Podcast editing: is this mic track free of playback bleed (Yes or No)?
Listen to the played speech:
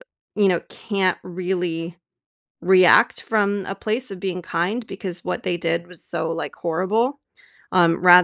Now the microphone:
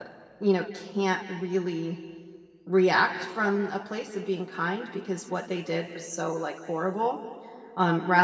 No